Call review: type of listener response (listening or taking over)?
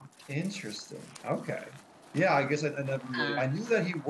listening